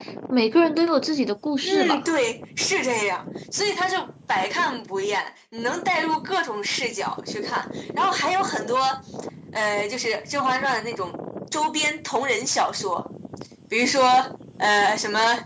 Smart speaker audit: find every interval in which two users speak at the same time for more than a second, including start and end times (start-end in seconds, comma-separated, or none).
none